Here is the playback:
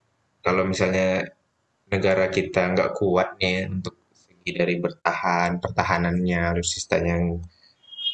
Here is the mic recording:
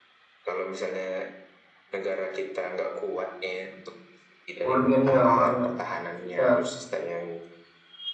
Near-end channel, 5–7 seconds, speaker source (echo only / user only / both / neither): both